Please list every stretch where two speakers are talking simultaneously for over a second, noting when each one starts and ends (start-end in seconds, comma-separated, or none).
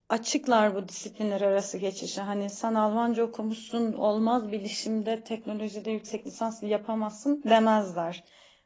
none